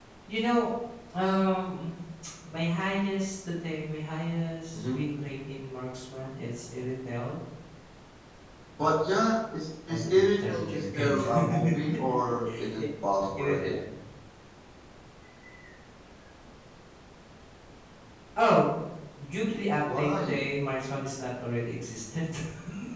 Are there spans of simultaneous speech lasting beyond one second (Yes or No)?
Yes